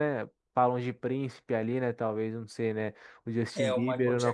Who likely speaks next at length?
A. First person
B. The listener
B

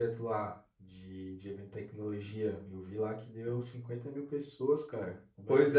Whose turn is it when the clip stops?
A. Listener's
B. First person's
A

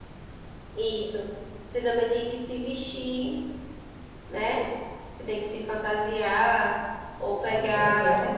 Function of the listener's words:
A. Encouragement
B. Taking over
A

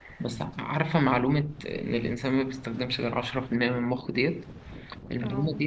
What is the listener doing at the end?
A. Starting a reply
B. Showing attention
B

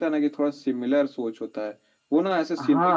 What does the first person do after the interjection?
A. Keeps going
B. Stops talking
A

